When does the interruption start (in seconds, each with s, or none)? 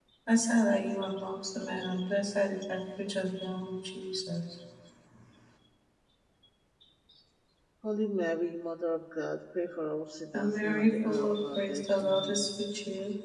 10.3 s